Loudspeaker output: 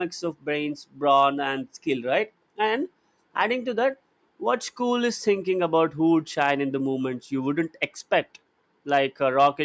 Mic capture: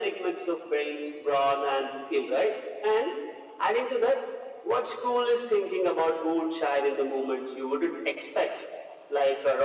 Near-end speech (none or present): none